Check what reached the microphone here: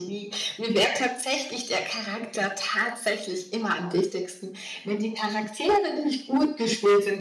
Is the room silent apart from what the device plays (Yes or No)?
Yes